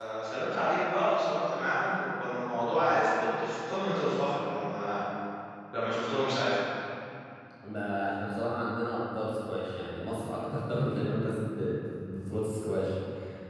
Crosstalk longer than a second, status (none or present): none